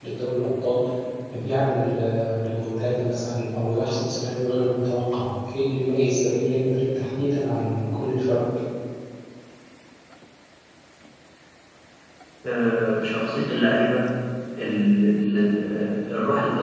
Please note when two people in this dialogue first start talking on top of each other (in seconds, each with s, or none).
none